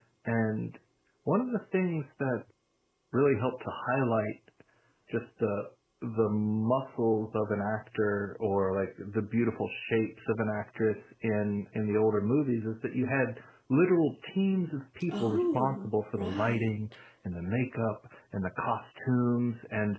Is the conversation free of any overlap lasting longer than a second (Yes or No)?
No